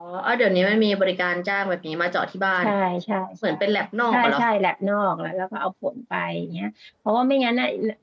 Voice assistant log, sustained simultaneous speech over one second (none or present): none